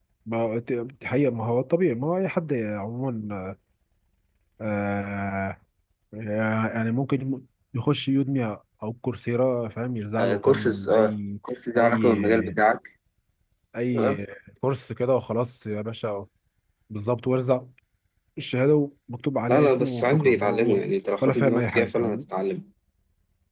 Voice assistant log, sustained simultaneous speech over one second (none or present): present